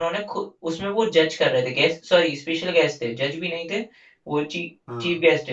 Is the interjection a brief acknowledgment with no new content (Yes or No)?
Yes